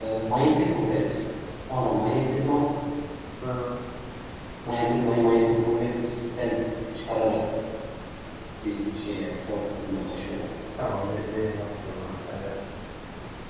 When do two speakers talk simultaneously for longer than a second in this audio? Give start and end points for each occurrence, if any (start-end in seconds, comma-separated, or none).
none